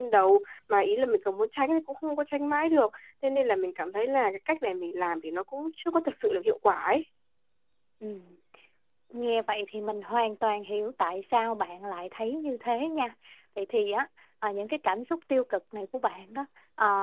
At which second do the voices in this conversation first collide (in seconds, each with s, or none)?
none